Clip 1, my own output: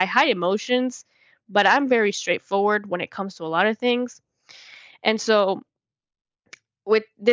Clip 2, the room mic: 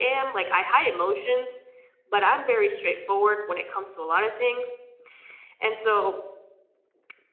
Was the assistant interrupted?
No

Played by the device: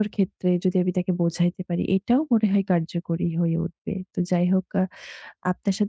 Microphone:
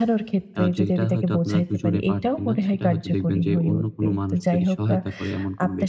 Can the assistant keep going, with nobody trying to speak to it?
No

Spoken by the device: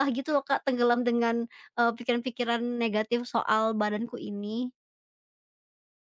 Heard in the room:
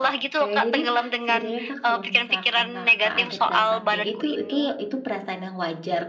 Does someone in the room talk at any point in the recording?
Yes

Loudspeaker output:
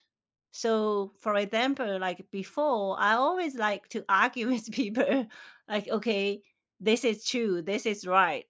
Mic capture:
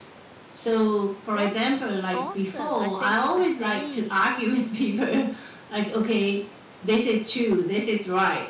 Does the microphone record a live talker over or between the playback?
Yes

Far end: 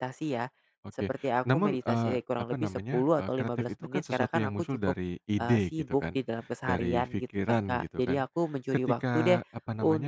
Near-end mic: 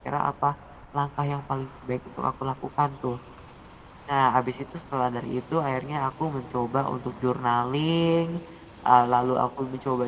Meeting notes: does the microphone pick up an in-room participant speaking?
Yes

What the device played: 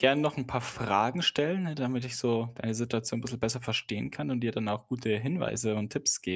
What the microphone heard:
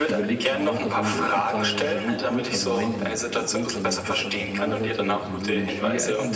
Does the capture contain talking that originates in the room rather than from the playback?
Yes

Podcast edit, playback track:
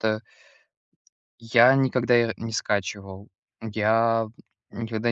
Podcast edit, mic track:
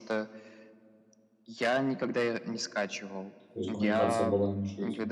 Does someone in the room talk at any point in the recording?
Yes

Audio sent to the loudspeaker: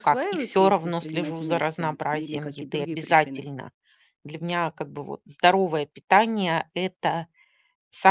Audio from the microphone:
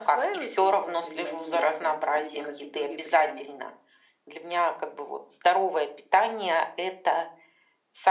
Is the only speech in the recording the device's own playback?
Yes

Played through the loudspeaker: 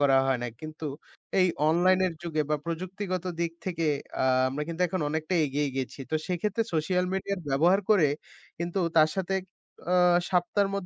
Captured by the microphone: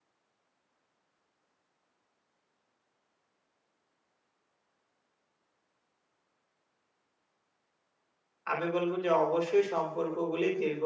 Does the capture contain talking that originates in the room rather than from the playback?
Yes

